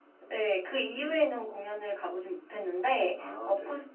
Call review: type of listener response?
listening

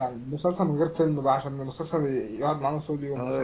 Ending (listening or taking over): taking over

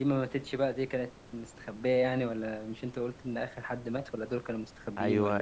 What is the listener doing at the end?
taking over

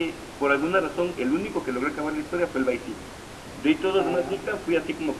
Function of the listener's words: listening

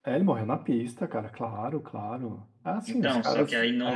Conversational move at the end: taking over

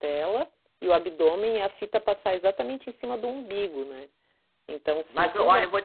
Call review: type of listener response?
taking over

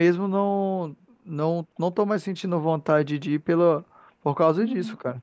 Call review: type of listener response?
taking over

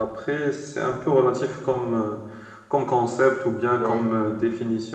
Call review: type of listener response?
listening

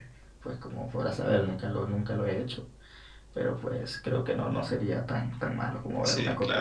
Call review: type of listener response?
taking over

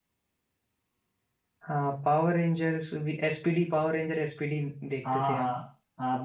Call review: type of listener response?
taking over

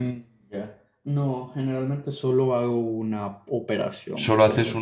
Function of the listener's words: taking over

